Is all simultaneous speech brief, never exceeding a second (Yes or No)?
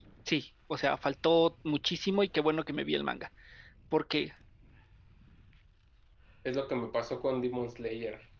Yes